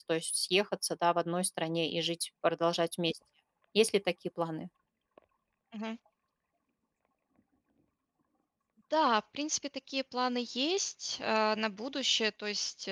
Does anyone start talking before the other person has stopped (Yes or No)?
No